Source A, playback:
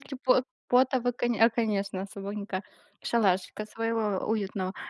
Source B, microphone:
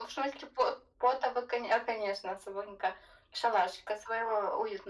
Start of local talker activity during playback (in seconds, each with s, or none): none